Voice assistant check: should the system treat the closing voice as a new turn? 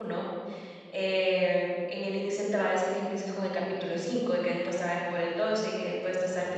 No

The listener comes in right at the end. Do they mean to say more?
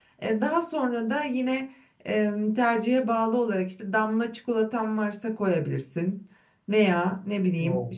No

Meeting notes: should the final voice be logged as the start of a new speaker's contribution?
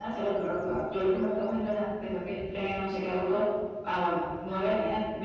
No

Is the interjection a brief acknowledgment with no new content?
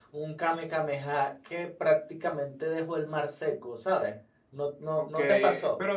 No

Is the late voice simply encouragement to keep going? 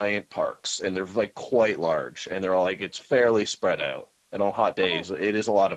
Yes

